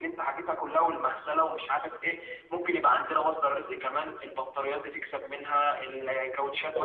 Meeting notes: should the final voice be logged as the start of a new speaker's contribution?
Yes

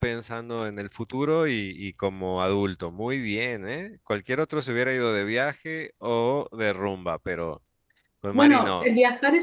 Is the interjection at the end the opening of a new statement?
Yes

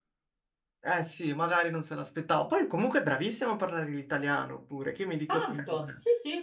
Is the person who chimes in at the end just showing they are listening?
No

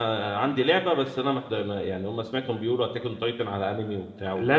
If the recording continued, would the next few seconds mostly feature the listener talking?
Yes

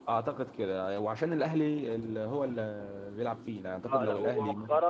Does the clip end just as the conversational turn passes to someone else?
Yes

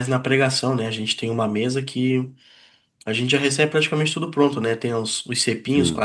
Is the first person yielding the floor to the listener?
No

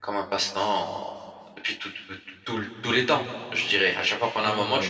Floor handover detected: Yes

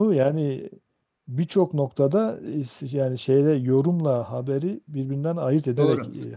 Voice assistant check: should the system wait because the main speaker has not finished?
No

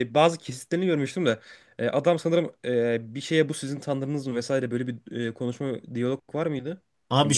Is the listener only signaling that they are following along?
No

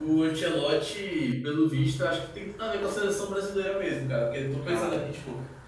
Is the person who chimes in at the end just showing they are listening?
Yes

